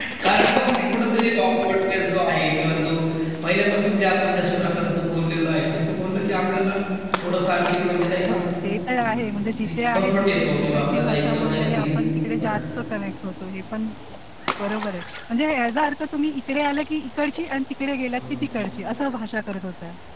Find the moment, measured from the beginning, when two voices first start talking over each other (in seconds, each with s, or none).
9.7 s